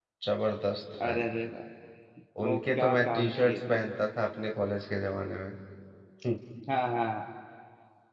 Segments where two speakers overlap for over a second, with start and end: 2.4-3.9

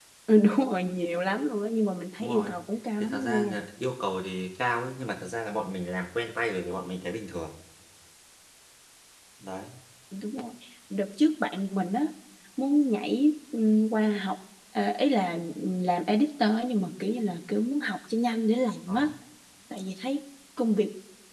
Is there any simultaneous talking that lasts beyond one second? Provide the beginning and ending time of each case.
none

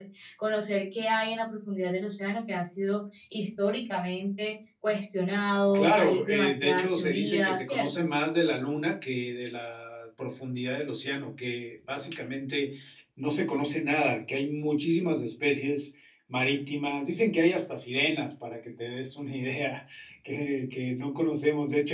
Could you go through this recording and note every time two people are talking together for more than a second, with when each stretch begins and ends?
5.7-8.1

